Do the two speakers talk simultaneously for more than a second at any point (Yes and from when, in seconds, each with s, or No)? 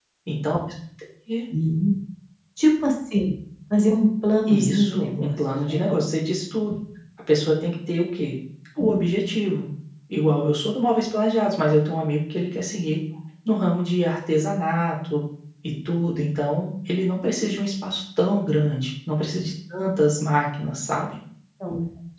Yes, from 4.5 s